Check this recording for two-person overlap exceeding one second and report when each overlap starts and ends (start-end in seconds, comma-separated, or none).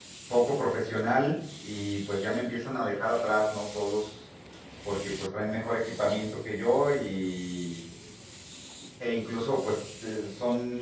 none